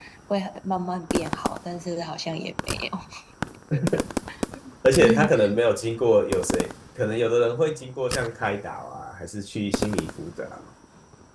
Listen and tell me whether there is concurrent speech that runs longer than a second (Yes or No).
No